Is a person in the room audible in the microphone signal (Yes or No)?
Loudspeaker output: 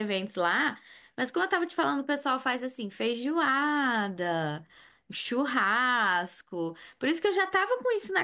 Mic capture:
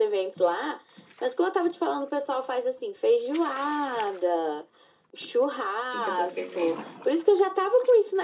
Yes